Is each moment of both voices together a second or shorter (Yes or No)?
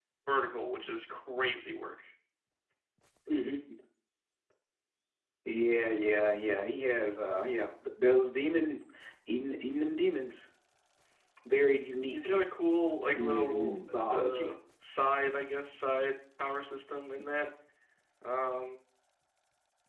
No